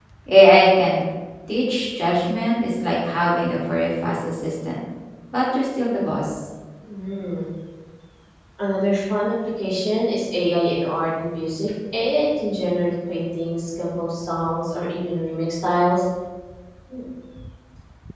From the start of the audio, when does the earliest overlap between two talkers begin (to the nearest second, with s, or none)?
none